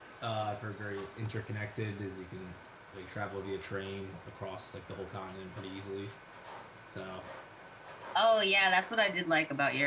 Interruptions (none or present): none